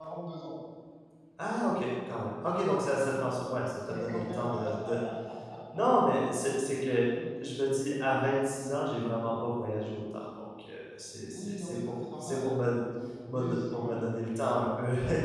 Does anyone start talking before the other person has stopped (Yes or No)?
Yes